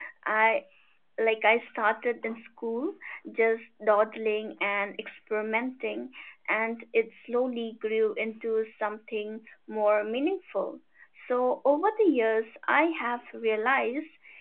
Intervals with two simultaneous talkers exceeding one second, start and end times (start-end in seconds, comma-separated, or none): none